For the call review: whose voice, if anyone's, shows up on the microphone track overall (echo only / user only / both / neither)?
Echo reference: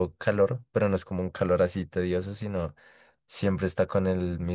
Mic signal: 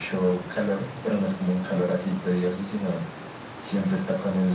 echo only